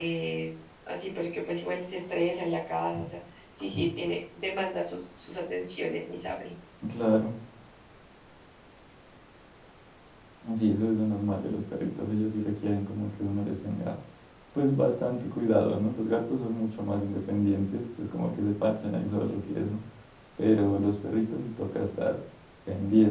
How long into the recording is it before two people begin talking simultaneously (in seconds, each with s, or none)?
none